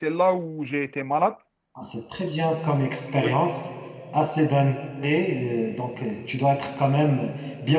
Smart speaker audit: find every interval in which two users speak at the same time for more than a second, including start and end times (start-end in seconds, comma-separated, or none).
none